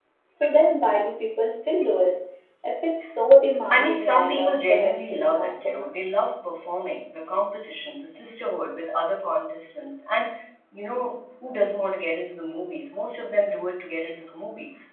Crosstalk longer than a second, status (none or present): present